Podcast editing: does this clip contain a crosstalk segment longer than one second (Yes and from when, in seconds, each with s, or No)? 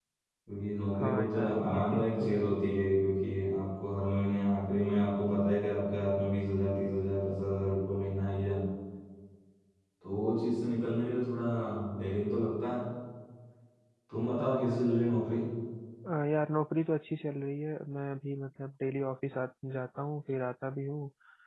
Yes, from 1.0 s